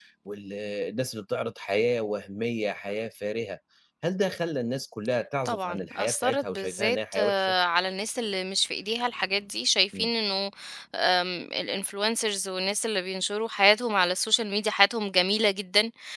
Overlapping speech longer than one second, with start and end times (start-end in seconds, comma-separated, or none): 5.5-7.5